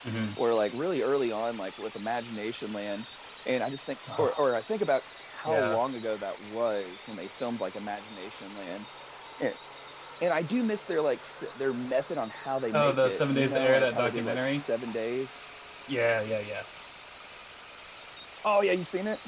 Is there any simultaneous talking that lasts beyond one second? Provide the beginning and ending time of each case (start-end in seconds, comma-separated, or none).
12.7-14.4